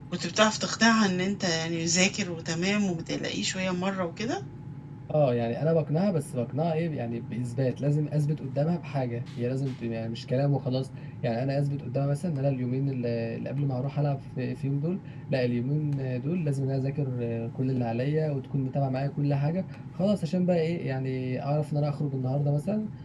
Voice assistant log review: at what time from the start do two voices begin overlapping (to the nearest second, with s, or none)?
none